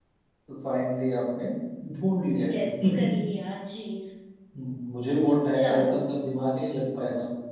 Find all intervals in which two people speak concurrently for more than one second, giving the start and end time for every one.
none

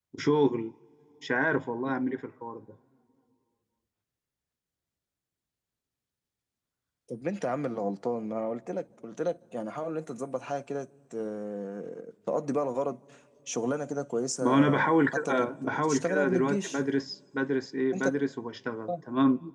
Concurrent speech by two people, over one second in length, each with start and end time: 15.2-16.8

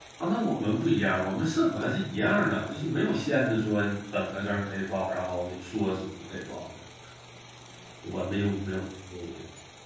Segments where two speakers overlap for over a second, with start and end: none

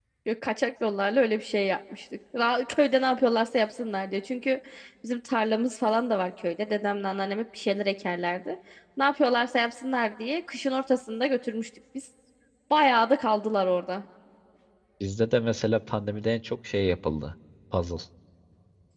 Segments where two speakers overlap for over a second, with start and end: none

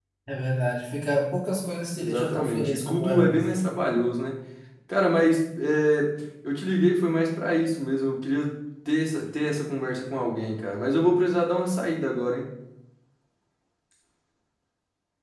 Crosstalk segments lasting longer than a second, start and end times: 2.0-3.6

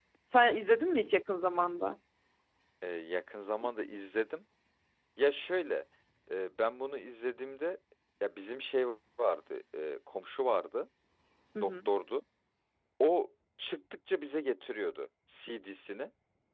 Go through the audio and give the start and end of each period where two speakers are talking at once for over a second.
none

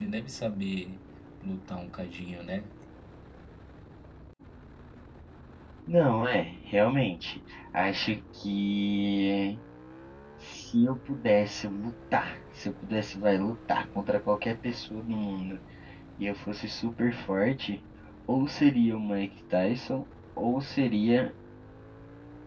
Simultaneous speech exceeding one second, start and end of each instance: none

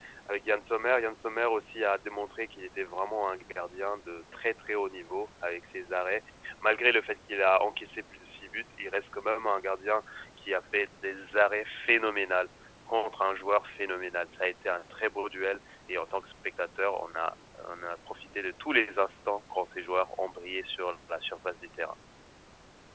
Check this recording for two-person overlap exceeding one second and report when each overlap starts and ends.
none

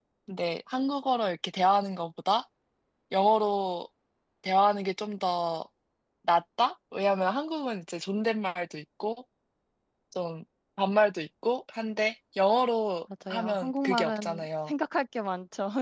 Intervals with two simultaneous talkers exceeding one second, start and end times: 13.3-14.7

